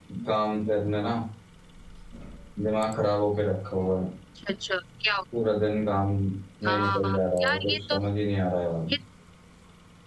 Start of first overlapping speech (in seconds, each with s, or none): 6.7 s